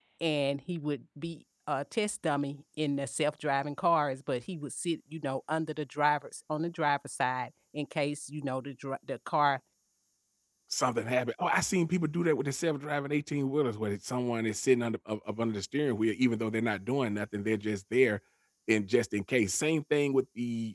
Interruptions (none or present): none